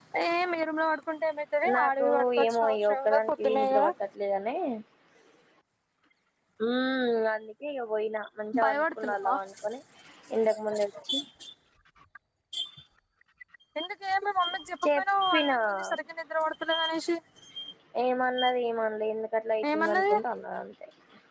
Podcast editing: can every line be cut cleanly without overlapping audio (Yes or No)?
No